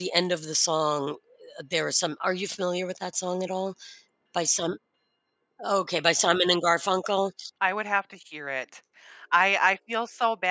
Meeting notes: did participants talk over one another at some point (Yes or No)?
No